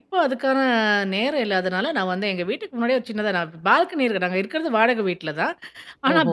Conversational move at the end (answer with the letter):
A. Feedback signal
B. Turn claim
A